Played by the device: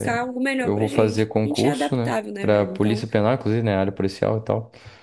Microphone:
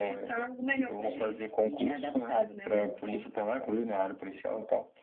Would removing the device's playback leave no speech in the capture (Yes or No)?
Yes